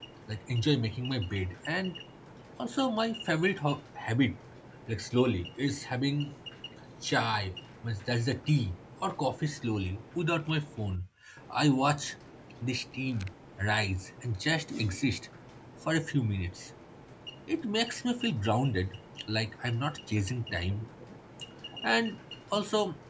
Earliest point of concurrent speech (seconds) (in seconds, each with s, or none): none